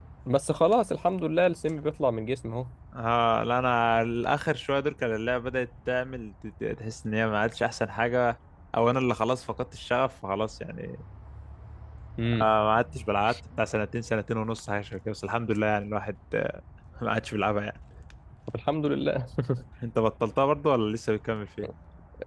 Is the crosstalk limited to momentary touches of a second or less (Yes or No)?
Yes